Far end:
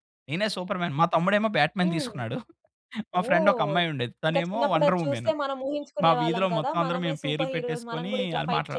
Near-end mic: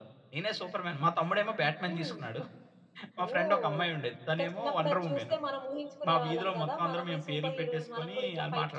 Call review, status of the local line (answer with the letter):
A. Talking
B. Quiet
B